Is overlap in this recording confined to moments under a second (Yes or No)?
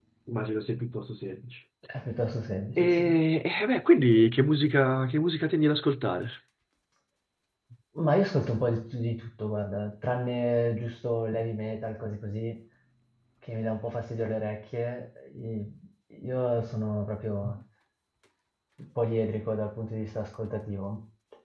Yes